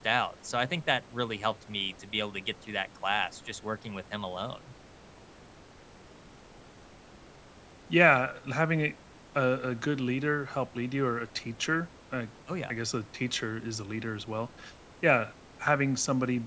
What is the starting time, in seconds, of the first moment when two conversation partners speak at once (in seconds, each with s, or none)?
none